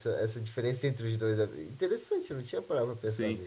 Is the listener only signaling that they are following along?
No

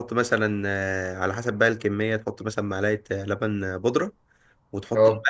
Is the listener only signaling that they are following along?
Yes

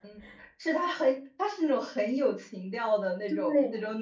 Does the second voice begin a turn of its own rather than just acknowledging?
Yes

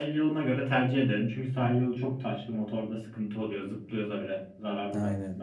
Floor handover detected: Yes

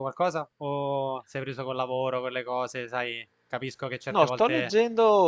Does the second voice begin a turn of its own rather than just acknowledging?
Yes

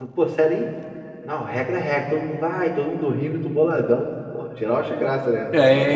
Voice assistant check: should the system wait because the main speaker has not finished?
No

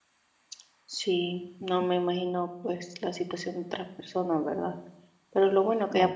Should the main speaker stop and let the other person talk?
No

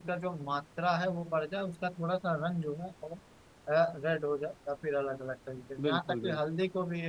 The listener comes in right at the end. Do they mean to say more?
No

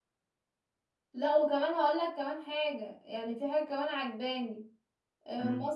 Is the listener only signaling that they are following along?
Yes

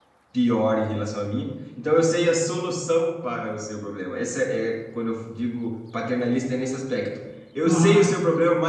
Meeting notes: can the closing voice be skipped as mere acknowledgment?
Yes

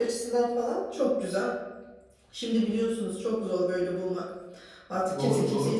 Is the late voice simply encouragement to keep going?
Yes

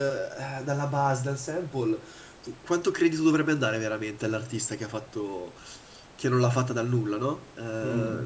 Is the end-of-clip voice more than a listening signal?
No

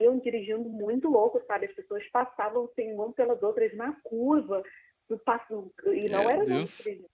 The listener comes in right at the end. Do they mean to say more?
No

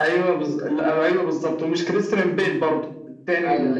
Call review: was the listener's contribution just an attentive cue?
Yes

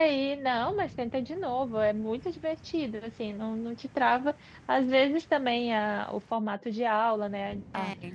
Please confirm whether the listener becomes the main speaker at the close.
No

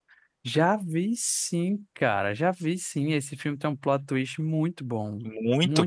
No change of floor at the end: No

